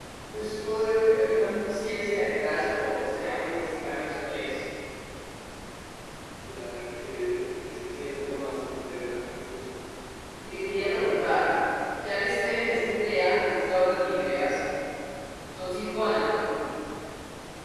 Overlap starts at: none

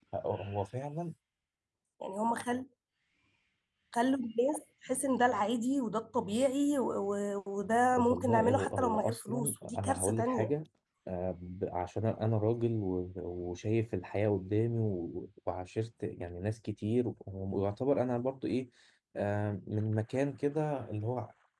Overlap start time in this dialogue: 7.9 s

